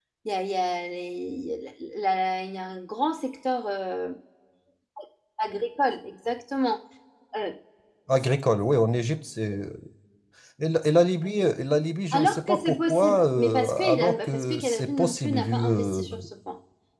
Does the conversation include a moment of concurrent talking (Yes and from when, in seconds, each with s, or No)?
Yes, from 12.1 s